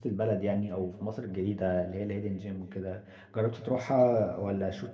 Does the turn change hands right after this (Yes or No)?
No